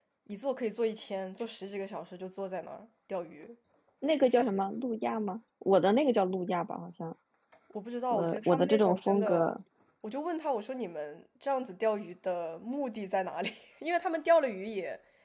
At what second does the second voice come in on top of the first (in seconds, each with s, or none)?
8.1 s